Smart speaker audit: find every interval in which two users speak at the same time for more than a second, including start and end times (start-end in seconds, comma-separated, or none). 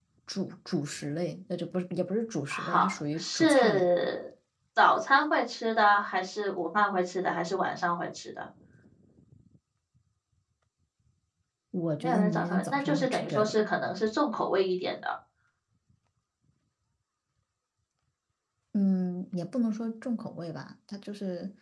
2.5-3.9, 12.0-13.6